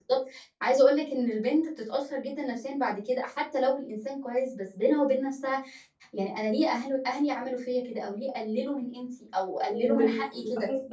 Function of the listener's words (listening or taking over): taking over